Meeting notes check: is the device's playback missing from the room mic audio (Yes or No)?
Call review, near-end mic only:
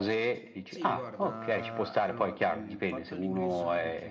No